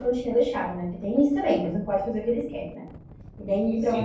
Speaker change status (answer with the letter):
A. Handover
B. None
A